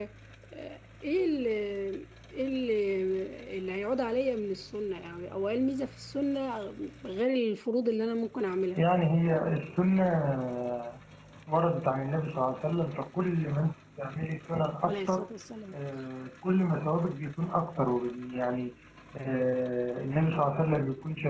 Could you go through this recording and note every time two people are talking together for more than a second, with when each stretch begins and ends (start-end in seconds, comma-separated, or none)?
none